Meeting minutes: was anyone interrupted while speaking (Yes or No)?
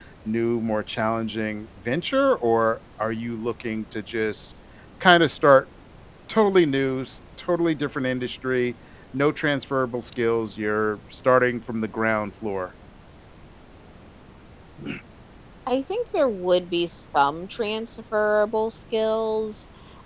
No